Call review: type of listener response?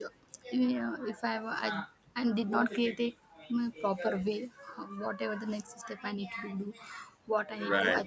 listening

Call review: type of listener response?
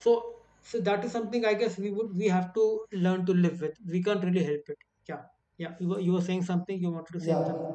taking over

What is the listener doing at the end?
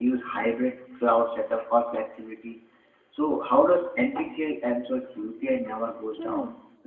taking over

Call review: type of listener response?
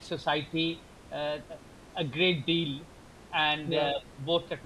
listening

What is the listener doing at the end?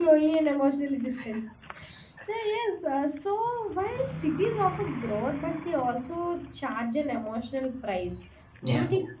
listening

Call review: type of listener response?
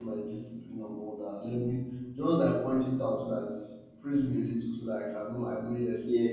taking over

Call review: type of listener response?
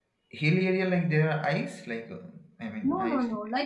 taking over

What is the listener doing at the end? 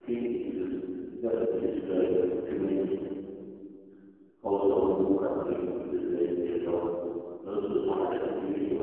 listening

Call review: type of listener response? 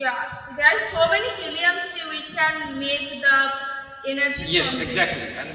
taking over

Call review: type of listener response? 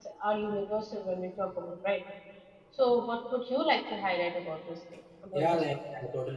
taking over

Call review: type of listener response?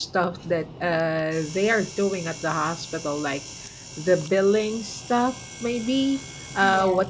listening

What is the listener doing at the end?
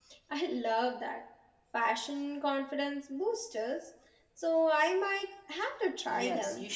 taking over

